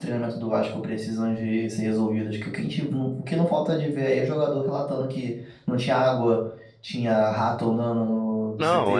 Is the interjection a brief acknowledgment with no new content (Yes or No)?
No